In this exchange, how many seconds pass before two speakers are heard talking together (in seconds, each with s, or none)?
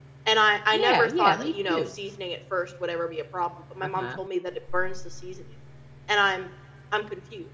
0.7 s